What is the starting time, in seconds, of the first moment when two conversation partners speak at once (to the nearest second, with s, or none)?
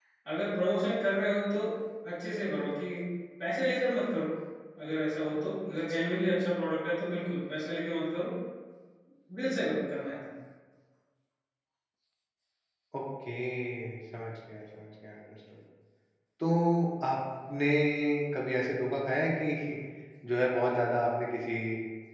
none